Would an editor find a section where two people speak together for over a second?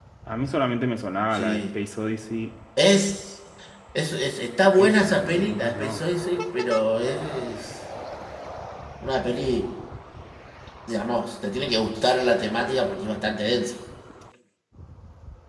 Yes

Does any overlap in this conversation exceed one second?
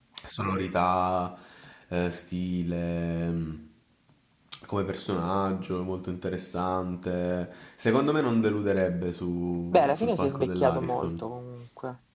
Yes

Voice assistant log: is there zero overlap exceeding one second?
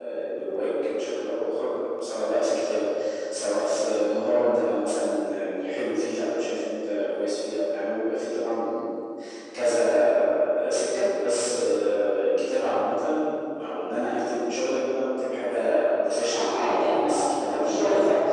No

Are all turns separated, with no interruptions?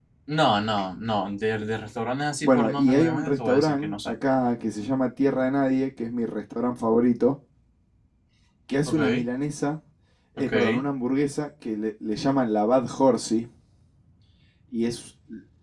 No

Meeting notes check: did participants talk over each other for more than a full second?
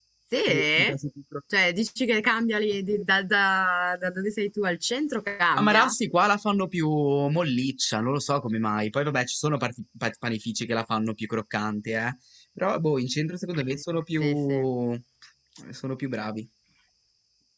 No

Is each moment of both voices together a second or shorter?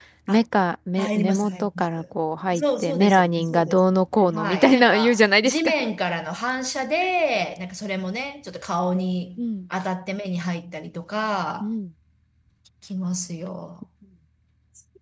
No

